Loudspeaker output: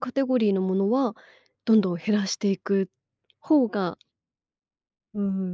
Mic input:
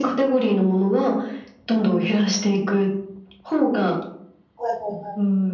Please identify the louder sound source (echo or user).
echo